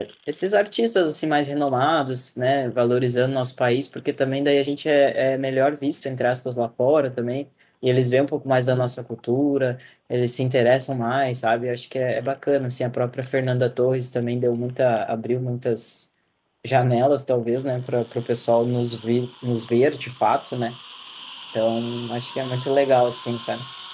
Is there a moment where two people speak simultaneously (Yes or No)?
No